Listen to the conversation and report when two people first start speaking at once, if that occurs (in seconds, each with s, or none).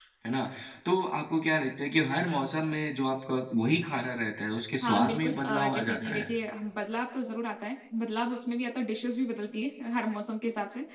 4.8 s